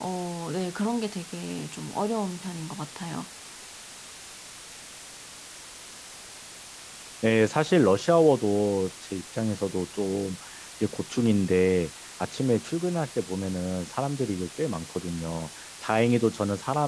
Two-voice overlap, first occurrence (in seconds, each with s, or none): none